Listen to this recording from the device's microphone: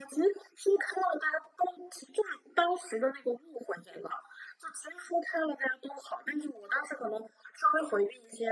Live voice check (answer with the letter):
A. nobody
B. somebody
A